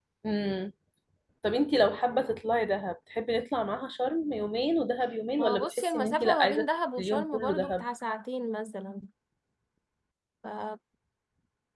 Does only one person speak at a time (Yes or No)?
No